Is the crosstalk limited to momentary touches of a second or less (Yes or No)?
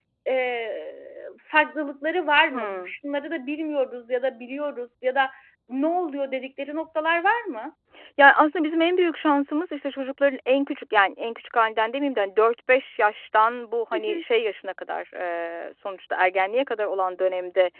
Yes